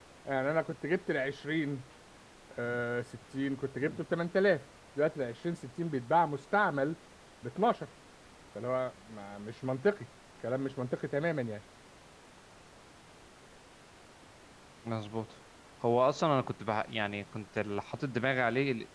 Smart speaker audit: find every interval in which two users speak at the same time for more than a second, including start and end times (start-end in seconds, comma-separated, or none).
none